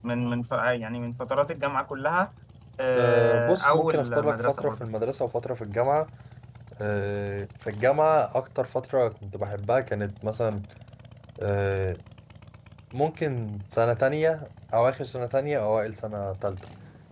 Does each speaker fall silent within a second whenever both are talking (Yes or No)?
No